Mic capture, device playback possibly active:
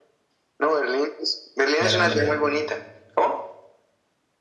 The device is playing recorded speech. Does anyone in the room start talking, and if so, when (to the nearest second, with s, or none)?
2 s